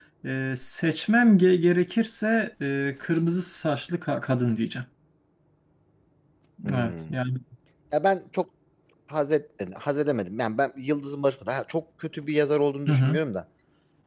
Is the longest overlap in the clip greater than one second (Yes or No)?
No